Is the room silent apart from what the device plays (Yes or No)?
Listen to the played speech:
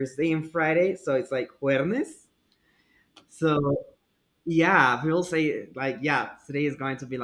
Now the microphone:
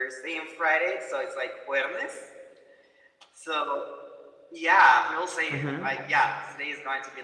No